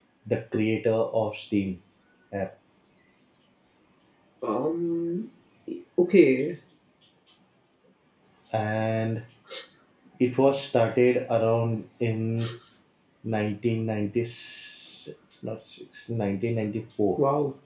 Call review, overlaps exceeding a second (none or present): none